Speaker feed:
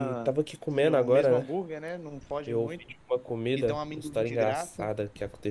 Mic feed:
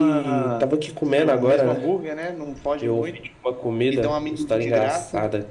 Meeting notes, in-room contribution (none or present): none